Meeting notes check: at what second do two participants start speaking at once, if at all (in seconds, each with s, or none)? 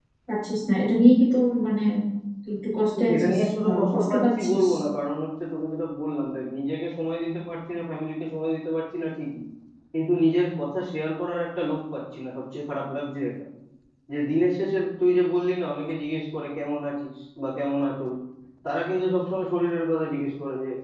2.9 s